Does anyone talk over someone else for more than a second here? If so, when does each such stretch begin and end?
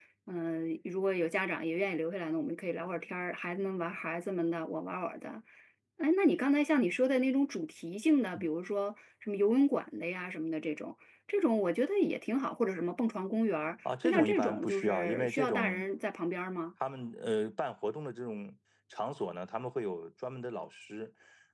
14.0-15.9

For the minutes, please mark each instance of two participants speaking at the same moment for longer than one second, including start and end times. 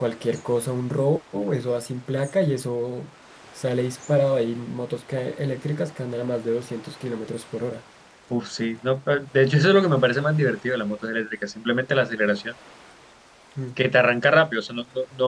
none

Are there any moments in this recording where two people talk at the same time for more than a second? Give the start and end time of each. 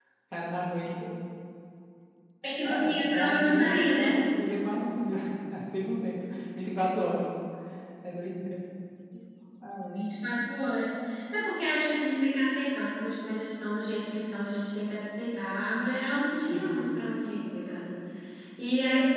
2.7-4.2

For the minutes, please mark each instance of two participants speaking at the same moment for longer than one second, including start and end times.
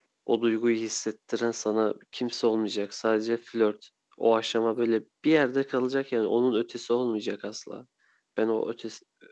none

